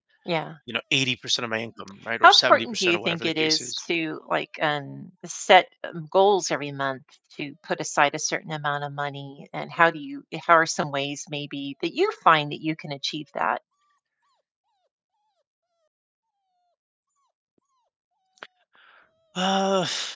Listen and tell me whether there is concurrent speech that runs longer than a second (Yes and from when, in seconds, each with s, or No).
Yes, from 2.2 s